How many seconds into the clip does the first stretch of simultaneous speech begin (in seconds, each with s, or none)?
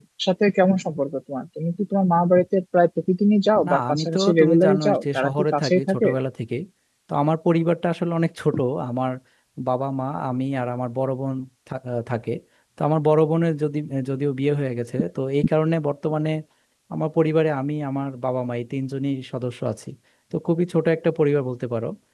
3.6 s